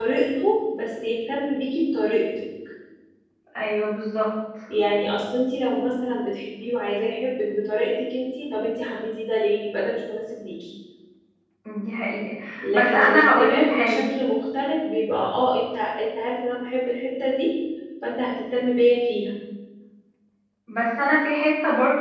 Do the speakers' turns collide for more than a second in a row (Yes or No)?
Yes